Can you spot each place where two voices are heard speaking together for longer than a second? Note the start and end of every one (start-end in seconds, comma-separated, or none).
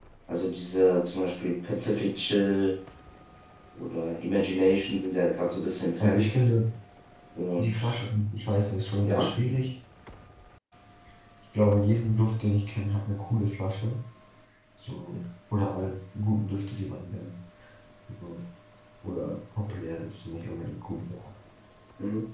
none